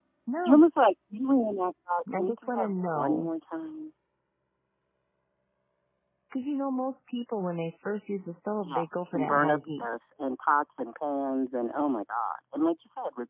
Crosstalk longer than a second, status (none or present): present